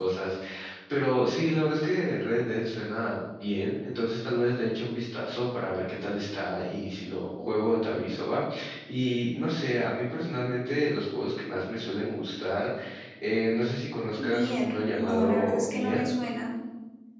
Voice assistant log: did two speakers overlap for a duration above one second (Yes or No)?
Yes